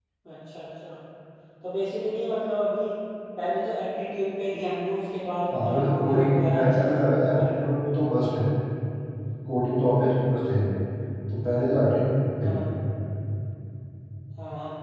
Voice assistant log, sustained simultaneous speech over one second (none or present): present